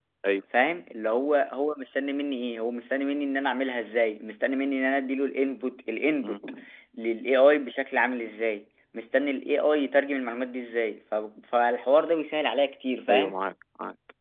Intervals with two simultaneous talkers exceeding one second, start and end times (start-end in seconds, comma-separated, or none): none